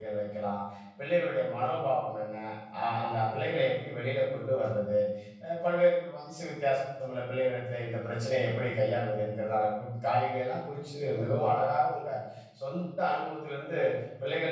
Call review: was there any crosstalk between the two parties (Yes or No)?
No